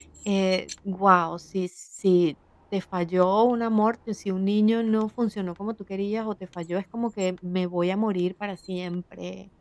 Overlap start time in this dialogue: none

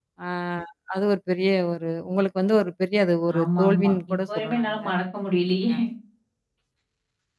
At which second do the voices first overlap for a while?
3 s

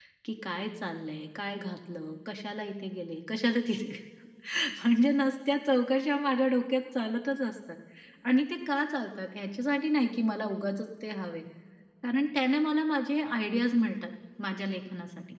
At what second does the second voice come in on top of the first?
none

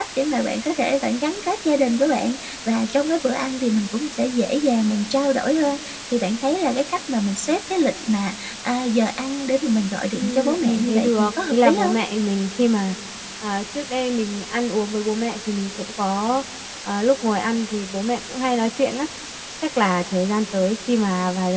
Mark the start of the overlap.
10 s

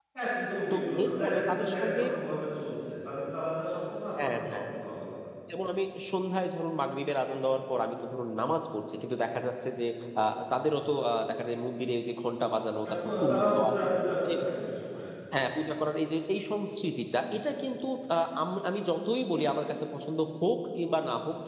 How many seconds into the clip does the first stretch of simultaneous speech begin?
1 s

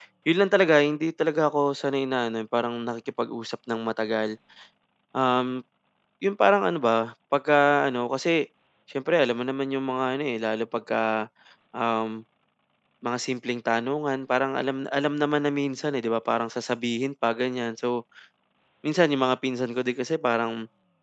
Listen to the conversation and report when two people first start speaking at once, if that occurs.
none

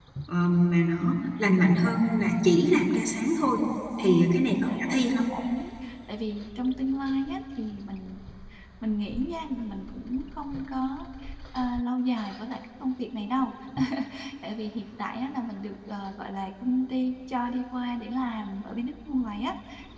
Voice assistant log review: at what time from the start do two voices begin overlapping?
4 s

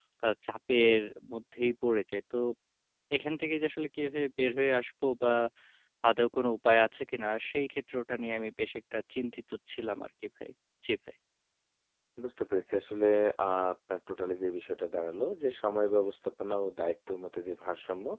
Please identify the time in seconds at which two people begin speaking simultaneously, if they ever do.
none

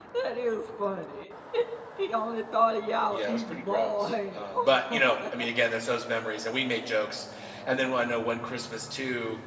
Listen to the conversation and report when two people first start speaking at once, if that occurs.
3 s

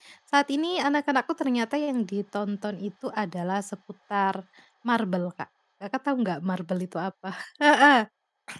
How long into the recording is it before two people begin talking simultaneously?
none

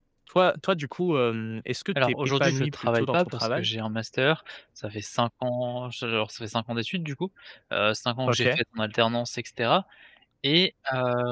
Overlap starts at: 2 s

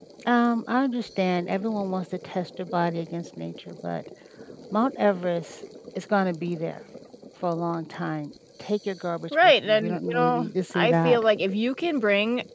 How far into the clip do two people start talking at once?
9 s

